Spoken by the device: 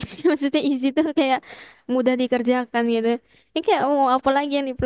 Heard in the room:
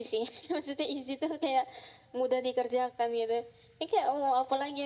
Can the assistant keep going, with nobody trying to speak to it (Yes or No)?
Yes